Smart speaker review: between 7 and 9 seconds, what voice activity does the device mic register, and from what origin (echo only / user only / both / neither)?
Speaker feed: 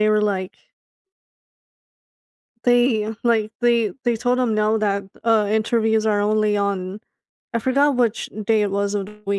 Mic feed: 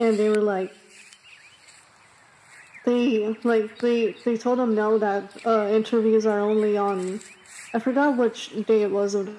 echo only